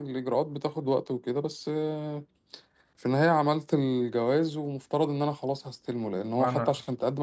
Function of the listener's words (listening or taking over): listening